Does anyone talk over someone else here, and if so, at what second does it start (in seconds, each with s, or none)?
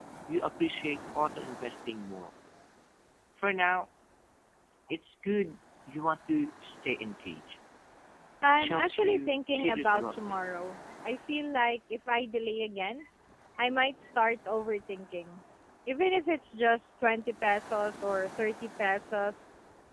8.5 s